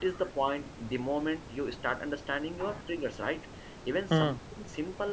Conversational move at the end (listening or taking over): listening